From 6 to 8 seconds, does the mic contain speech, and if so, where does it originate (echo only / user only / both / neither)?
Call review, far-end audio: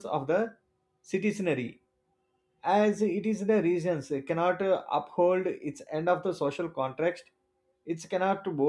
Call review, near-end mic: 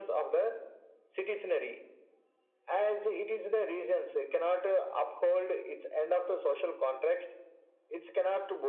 echo only